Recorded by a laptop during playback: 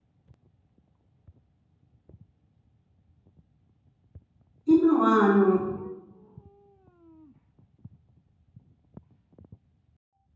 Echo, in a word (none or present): none